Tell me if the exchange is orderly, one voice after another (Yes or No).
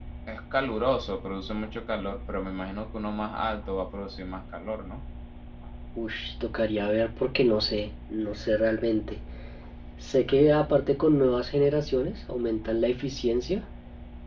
Yes